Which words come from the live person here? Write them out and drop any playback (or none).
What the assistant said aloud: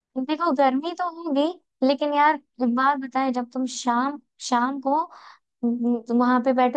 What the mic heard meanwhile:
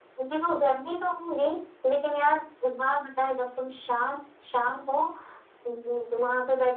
none